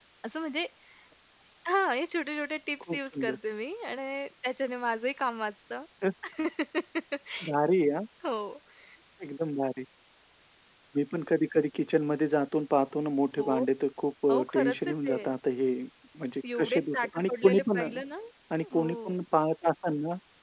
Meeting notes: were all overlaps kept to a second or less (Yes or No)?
No